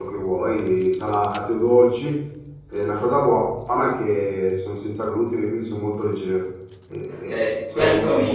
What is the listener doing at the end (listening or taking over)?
taking over